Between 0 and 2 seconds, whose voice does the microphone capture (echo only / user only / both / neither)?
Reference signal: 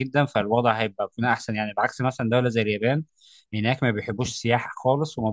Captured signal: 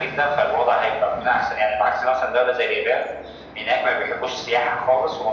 echo only